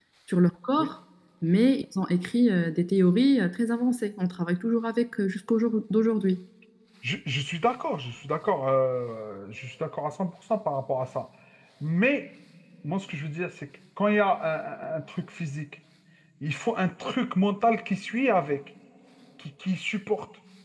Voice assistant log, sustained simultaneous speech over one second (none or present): none